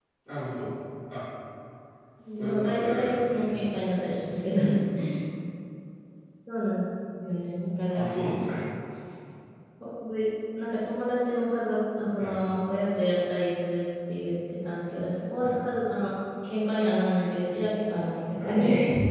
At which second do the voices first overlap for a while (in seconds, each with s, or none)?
2.4 s